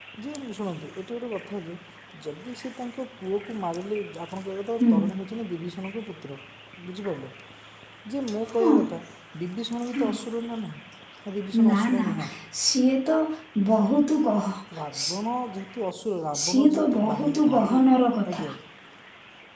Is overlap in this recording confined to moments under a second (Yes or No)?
No